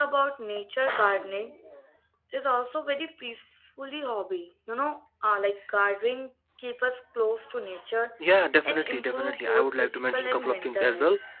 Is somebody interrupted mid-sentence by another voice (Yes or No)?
Yes